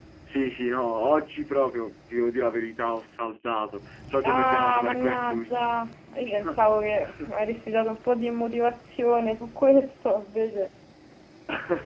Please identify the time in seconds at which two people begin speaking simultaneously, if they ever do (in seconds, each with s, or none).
4.2 s